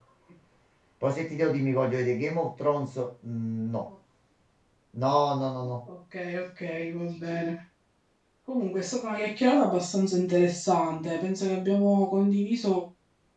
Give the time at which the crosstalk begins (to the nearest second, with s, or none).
none